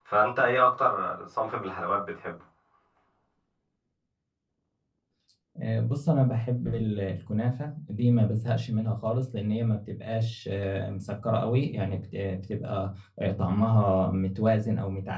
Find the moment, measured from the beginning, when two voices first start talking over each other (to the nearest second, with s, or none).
none